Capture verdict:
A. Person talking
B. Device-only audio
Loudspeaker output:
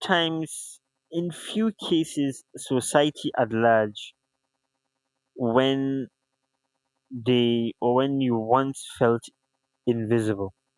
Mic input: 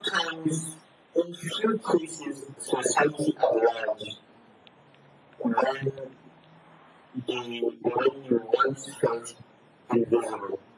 B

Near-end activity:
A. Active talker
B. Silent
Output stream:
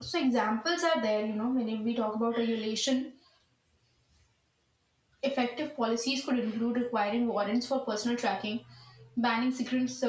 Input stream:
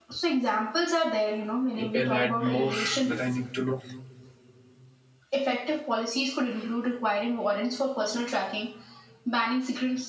A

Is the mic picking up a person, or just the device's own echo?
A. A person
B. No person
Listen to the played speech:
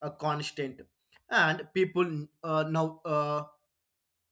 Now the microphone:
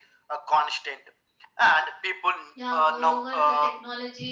A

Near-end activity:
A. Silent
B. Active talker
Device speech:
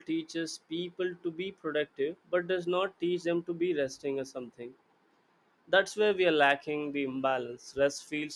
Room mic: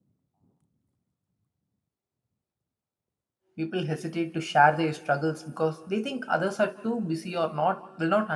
B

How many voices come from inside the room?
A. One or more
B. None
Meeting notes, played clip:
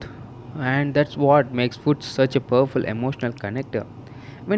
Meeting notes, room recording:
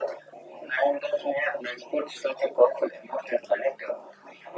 B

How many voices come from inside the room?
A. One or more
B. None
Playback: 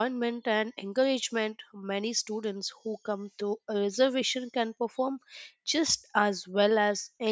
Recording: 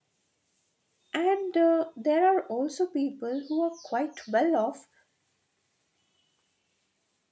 A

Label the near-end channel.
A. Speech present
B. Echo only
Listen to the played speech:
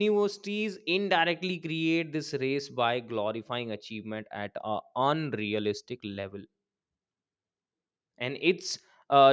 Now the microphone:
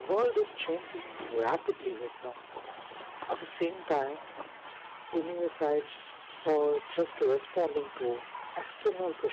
A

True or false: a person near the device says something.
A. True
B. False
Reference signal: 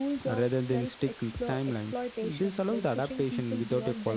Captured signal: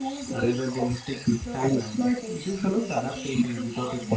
B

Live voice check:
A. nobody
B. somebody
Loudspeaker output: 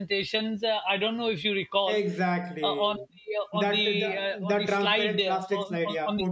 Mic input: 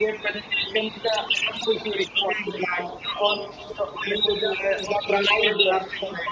A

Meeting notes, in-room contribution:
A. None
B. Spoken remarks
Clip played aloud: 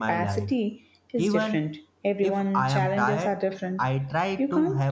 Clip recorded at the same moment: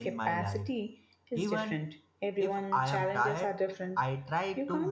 A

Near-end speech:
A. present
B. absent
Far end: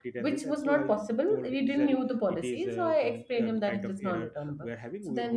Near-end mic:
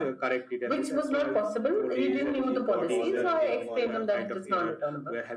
A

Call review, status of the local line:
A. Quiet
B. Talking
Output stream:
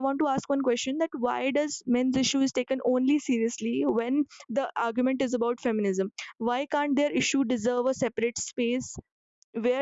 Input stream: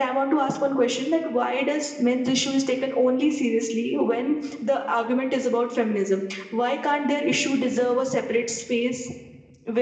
A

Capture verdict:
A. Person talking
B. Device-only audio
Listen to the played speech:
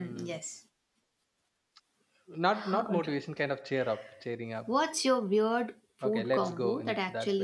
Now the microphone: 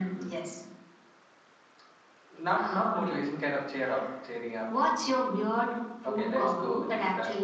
B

